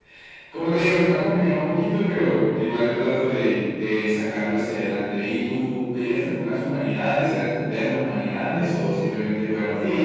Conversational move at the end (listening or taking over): taking over